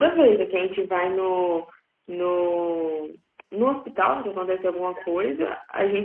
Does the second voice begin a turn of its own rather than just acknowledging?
No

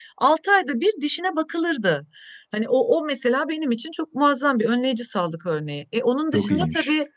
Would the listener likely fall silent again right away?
Yes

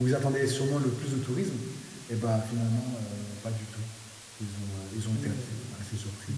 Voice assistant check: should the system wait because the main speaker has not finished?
No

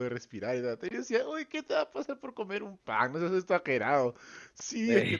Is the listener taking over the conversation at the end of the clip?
No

